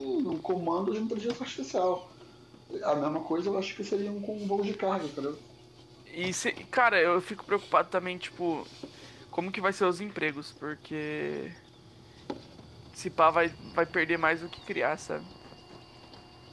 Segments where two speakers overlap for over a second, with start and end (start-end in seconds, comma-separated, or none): none